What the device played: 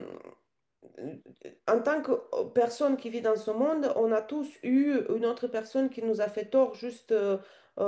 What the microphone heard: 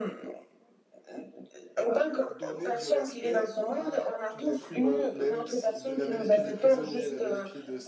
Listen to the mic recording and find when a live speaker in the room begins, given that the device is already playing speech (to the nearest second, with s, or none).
2 s